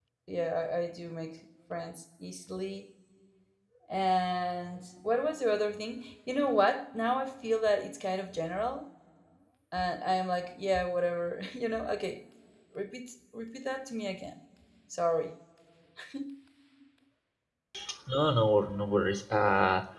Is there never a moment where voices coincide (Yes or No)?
Yes